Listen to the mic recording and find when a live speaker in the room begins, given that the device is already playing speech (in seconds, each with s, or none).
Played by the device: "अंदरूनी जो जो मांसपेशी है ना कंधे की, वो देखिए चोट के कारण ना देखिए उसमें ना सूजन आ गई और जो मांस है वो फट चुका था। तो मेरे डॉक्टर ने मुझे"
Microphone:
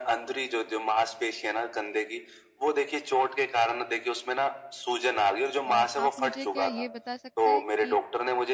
5.7 s